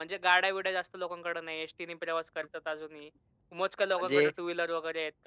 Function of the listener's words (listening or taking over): listening